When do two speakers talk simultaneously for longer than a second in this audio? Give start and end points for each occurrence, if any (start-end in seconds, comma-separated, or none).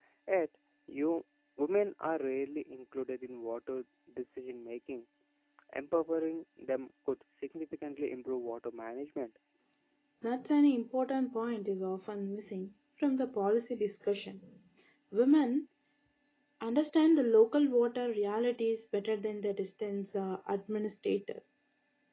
none